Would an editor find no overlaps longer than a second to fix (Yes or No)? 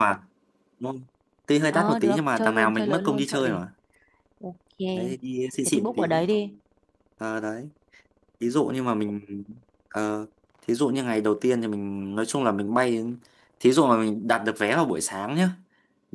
No